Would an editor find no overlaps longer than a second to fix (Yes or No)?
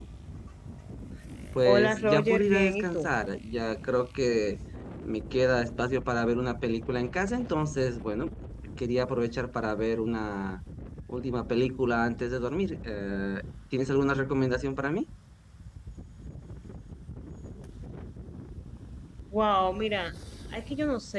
No